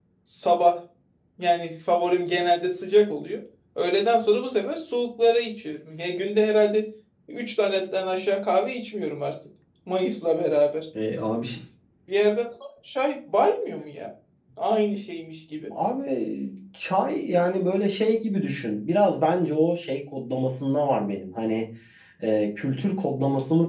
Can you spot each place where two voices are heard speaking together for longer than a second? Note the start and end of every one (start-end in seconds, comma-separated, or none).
none